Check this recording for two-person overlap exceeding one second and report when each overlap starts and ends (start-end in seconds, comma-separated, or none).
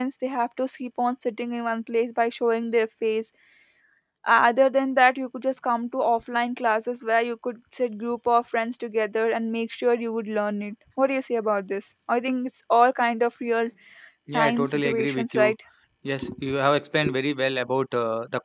14.3-15.5